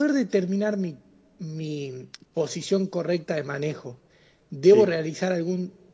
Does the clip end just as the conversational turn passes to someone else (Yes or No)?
No